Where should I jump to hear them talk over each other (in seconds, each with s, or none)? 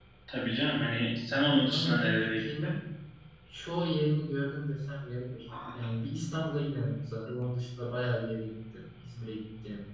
1.3 s